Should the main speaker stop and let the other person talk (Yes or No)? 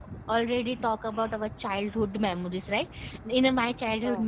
No